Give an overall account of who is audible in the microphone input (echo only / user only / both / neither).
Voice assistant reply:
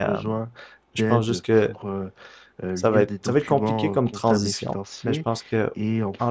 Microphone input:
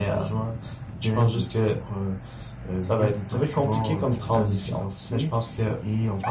echo only